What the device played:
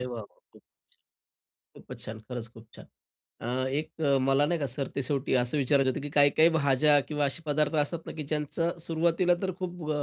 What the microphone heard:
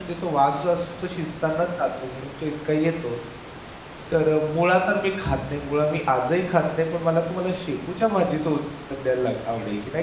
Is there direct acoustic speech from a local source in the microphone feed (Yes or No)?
Yes